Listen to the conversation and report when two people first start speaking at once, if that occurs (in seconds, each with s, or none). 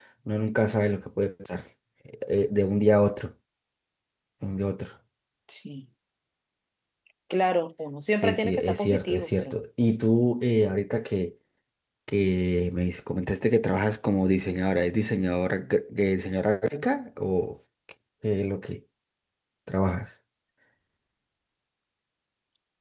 8.2 s